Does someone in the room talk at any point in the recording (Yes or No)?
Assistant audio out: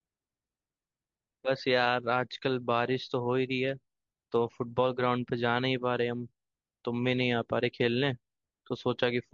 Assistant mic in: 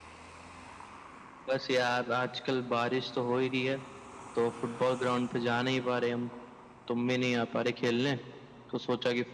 No